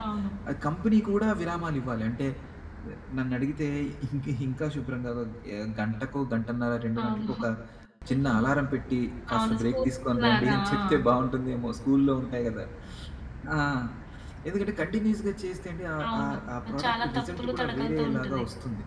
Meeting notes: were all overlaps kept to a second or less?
No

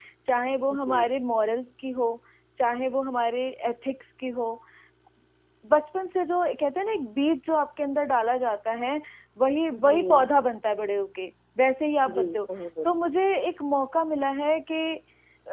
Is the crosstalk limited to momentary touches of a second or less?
Yes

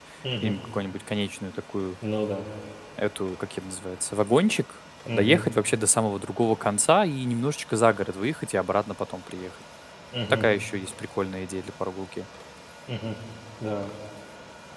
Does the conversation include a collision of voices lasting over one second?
No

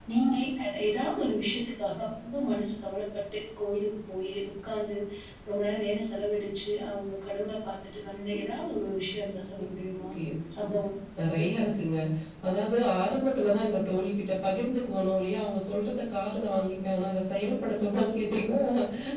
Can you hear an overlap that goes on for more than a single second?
No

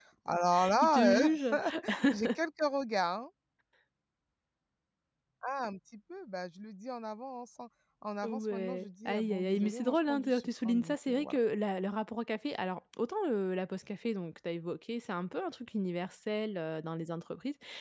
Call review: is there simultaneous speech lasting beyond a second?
Yes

